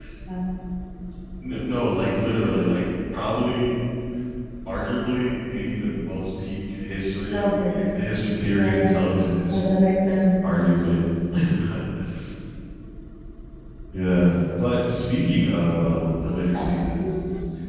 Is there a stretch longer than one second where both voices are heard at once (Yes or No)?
No